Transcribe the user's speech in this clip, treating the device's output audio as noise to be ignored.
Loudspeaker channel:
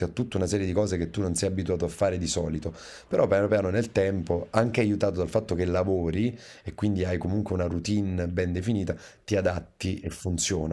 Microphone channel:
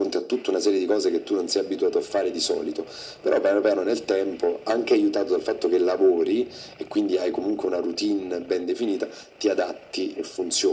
none

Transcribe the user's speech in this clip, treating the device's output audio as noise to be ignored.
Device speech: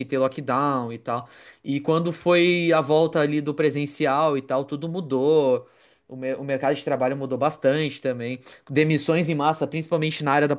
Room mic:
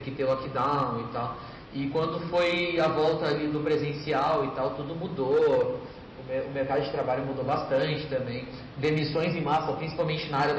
none

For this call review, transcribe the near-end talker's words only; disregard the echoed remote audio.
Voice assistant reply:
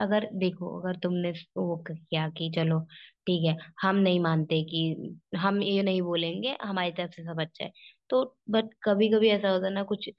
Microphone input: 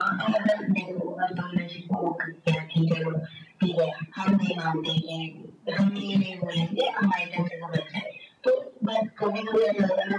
none

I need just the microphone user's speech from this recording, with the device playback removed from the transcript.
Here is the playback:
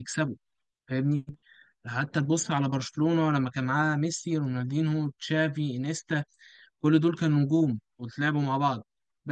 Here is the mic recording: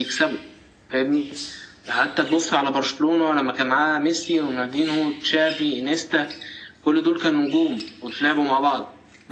none

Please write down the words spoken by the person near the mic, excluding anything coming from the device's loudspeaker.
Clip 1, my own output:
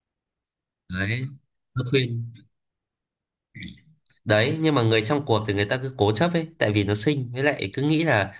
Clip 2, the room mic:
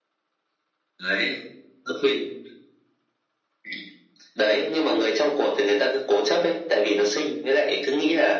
none

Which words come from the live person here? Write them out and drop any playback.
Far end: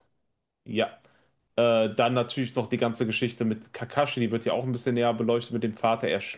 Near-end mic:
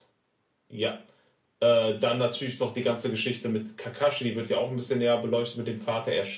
none

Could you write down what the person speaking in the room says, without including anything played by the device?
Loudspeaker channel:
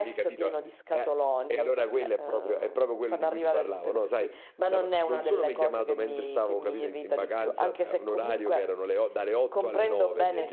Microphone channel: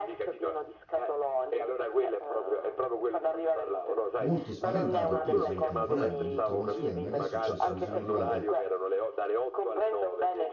molto spaventato, ho preso e ho telefonato, ho detto, ma scusate, ma che è successo? Mi sono arrivate

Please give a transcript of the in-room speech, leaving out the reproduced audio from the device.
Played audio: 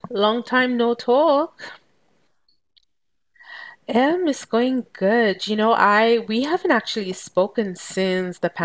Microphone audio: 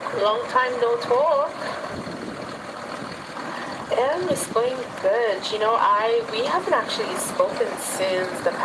none

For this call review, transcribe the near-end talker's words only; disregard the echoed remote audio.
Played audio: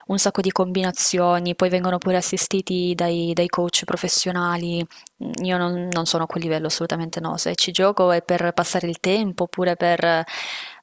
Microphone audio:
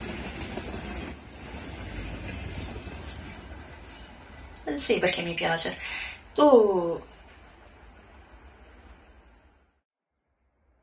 Ehm, sì, perché mi piace. Tu

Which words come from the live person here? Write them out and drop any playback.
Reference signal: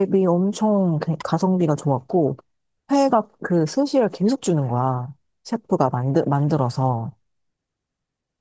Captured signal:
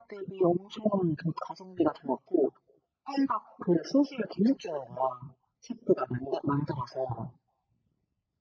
none

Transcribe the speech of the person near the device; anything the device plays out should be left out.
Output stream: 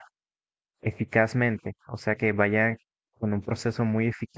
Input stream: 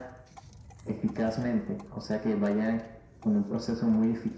none

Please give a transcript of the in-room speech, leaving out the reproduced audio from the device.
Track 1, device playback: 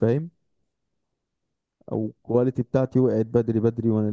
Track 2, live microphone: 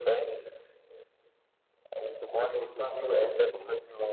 تاخد الخطوة دي وتروح تطلعه

